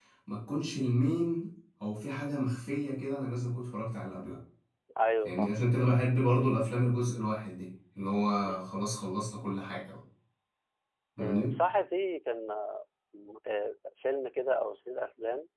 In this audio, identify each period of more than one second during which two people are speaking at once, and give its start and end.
none

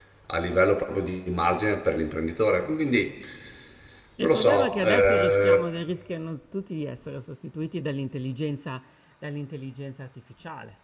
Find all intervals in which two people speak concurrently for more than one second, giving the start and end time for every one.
4.2-5.7

